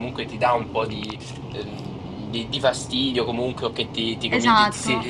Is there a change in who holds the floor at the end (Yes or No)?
No